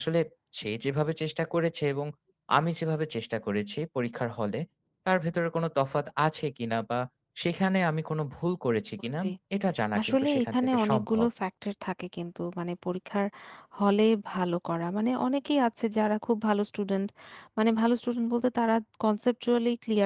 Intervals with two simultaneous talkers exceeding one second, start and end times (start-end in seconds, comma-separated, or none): 10.0-11.2